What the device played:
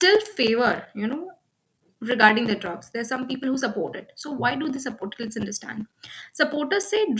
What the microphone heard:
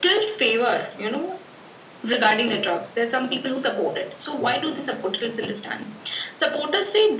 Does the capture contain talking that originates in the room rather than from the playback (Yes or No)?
No